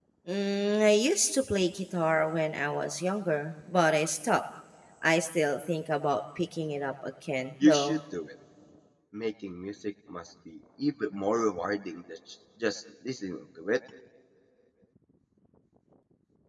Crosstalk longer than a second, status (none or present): none